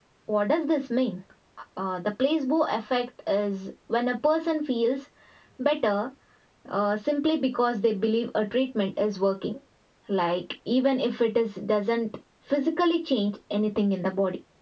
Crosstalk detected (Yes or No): No